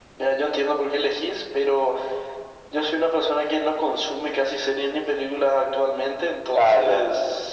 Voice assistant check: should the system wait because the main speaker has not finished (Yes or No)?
Yes